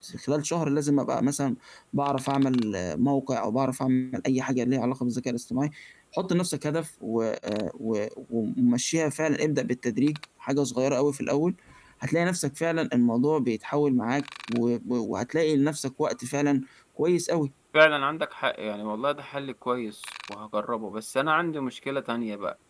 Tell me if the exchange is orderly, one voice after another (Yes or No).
Yes